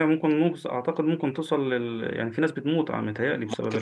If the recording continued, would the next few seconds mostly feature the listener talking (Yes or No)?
Yes